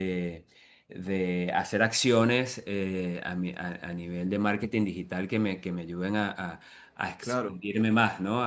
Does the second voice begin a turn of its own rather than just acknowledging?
No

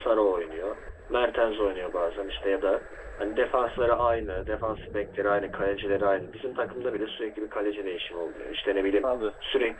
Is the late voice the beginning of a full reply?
No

